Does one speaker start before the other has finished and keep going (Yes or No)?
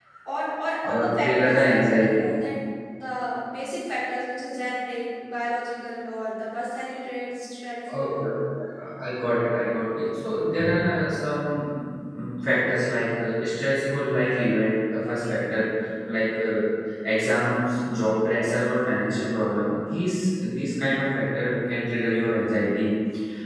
Yes